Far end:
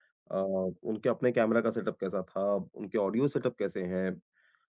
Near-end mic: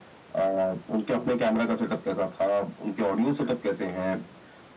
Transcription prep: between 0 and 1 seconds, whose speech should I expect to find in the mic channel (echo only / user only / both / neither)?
echo only